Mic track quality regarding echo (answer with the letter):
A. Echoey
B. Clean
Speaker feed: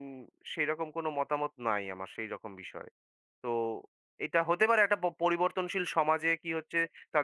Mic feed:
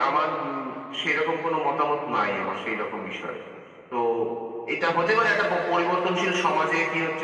A